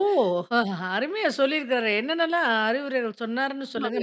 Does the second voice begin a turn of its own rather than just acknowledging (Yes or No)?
Yes